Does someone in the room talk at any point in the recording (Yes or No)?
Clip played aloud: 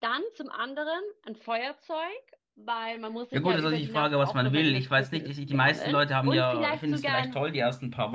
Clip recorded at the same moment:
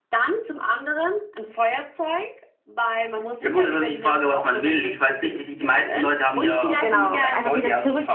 Yes